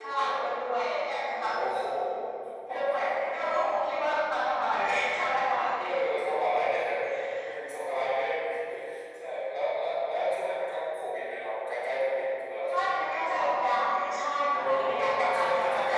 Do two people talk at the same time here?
Yes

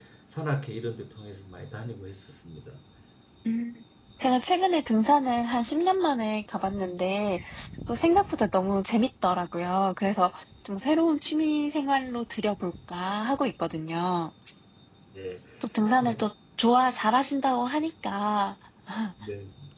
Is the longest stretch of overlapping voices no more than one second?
Yes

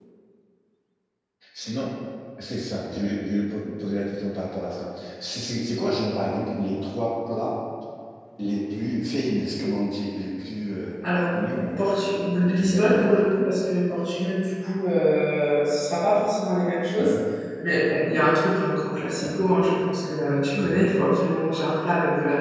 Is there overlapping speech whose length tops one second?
Yes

